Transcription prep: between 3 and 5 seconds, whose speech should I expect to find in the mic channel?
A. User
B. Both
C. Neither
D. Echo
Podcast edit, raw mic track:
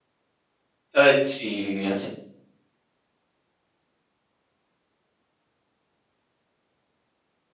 C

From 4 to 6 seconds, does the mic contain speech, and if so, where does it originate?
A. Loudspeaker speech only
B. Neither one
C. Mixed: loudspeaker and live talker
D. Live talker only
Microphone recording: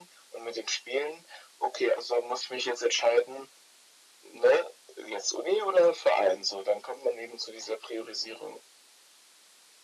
A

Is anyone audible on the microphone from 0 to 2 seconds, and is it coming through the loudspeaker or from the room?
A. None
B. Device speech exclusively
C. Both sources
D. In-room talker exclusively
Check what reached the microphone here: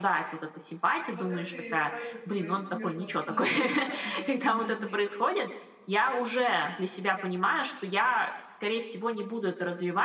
C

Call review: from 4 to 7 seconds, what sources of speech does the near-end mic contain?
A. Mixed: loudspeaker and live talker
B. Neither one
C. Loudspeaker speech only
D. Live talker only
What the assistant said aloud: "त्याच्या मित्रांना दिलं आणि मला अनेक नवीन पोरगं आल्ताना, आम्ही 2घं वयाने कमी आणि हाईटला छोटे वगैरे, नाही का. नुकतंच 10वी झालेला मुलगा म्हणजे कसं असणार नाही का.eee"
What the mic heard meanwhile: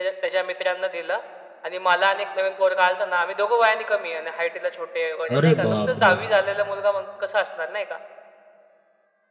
A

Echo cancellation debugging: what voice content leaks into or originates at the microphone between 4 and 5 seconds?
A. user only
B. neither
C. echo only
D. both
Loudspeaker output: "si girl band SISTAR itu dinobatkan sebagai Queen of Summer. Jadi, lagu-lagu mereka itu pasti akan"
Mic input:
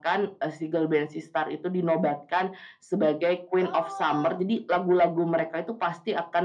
D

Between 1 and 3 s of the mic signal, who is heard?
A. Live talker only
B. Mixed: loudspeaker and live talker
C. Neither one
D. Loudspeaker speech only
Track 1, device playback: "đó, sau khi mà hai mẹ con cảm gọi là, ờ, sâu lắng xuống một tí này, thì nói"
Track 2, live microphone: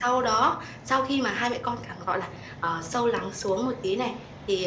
D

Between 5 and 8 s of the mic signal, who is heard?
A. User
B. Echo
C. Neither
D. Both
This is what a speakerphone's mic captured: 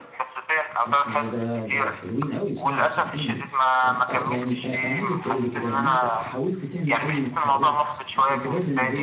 D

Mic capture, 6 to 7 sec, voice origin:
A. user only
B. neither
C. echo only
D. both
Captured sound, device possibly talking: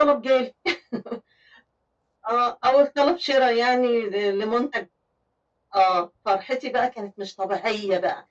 C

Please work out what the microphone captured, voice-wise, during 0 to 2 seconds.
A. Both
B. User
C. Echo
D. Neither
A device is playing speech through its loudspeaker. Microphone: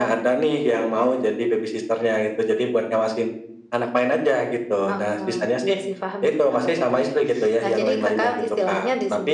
C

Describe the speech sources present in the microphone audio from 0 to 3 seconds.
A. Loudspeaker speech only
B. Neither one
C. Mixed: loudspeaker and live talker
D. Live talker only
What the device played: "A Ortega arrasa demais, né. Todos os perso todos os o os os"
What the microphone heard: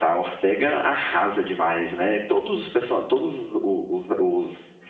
A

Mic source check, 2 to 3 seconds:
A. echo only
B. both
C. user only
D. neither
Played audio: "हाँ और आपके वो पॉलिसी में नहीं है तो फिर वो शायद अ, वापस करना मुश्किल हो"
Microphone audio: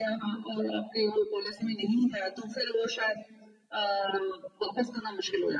A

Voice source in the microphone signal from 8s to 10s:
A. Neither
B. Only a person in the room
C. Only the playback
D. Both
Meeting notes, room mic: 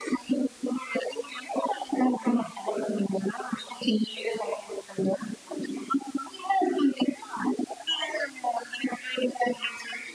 C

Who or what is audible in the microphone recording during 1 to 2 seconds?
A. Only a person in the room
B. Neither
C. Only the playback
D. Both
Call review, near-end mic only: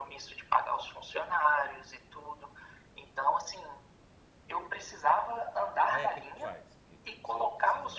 C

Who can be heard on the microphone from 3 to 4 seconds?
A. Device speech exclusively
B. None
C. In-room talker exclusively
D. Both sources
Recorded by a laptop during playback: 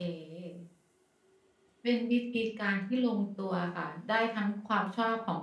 C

